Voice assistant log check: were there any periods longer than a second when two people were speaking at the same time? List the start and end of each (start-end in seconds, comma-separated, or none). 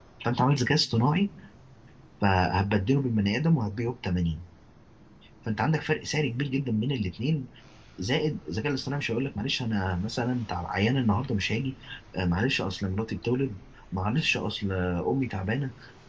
none